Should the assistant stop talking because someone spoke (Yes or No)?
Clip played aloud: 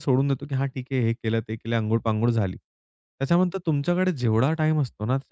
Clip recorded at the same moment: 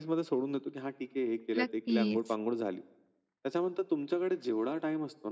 Yes